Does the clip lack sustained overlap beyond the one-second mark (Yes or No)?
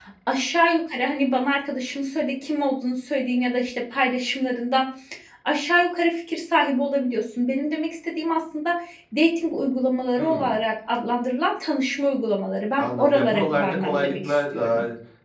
No